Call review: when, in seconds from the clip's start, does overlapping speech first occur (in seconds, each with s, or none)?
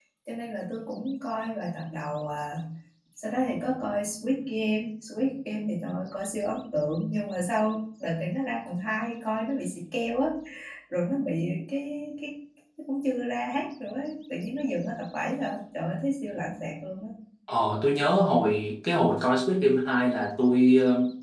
none